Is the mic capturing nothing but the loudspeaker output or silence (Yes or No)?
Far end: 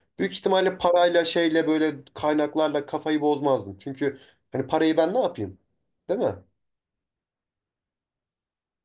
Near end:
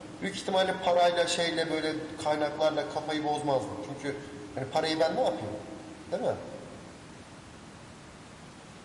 Yes